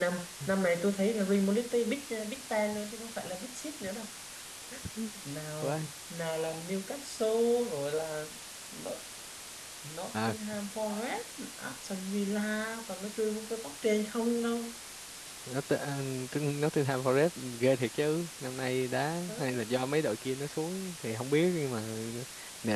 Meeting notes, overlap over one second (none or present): none